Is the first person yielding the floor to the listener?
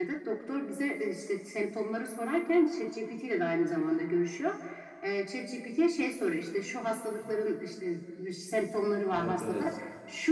No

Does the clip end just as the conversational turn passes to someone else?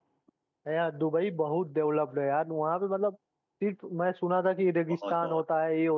No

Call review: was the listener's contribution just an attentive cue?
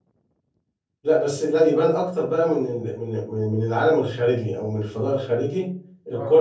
Yes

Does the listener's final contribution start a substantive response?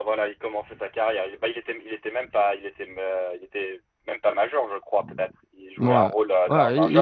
Yes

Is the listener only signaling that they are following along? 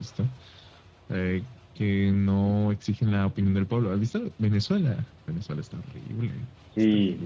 No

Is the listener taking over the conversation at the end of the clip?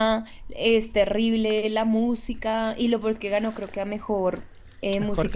Yes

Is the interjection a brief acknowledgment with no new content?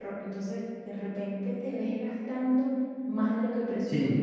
Yes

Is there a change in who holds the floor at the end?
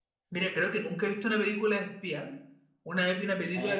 No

